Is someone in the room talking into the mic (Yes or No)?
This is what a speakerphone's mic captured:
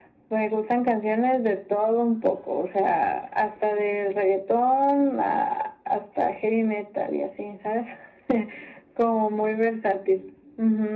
No